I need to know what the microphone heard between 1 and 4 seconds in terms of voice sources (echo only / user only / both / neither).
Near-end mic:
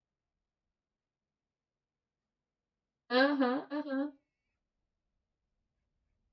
user only